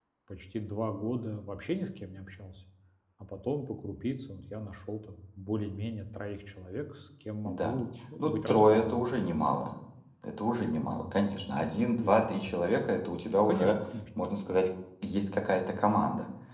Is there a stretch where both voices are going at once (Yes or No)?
Yes